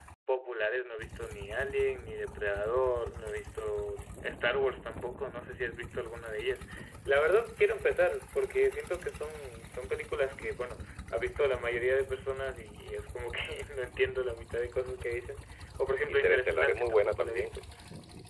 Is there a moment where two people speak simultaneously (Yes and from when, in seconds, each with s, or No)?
Yes, from 16.1 s